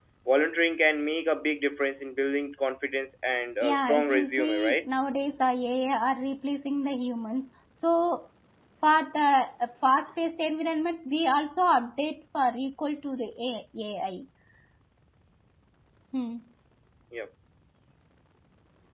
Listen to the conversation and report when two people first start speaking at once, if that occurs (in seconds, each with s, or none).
3.6 s